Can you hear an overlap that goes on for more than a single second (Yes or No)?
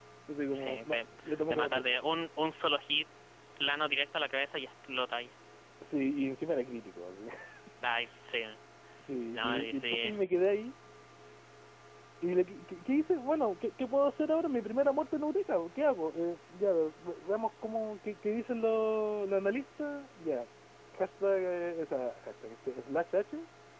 Yes